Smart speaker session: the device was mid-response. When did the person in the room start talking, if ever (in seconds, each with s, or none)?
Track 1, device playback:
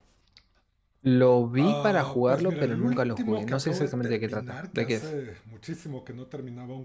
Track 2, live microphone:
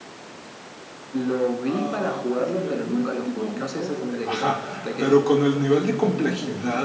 4.2 s